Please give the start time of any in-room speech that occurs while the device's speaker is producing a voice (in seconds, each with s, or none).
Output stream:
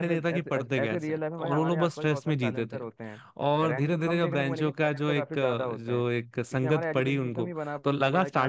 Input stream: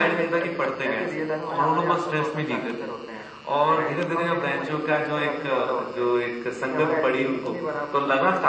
none